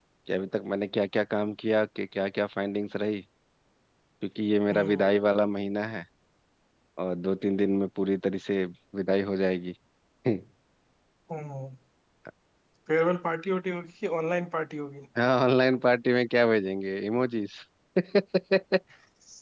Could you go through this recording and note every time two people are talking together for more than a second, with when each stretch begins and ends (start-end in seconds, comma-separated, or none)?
none